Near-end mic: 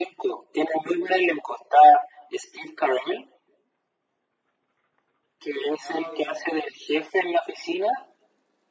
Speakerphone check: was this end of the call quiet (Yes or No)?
No